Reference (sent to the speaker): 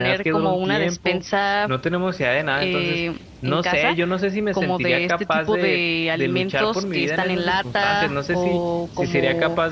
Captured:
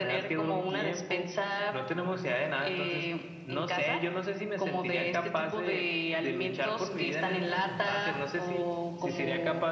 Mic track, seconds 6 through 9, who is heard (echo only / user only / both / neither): echo only